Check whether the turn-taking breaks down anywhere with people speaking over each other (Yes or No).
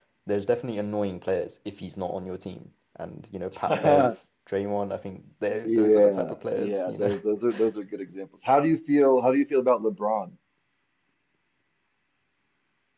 Yes